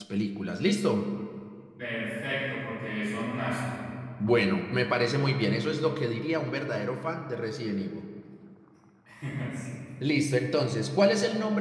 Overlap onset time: none

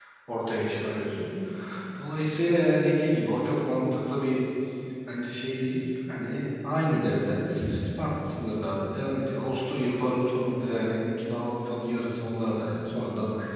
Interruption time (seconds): none

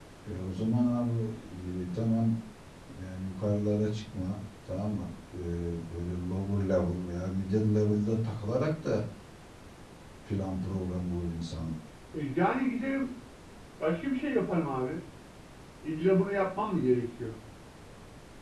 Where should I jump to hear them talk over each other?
none

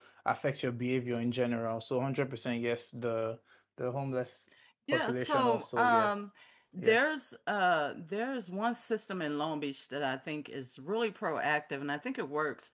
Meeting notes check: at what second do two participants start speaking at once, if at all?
4.9 s

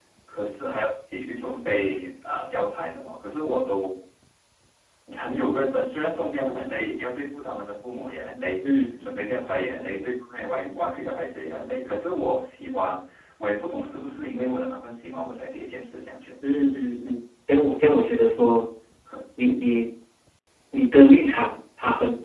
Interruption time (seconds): none

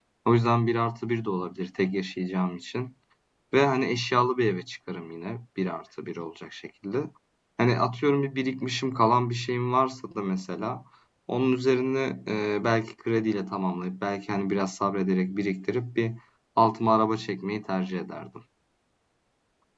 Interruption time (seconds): none

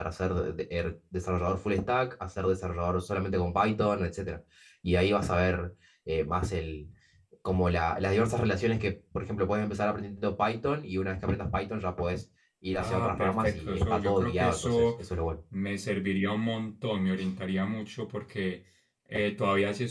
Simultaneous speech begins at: 12.8 s

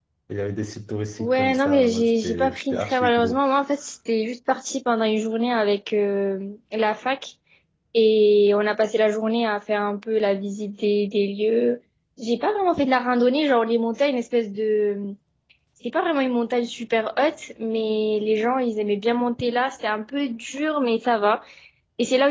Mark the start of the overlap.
1.2 s

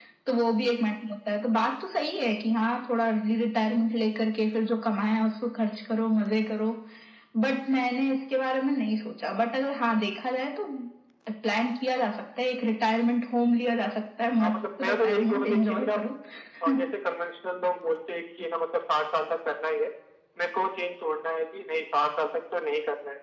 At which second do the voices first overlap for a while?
14.4 s

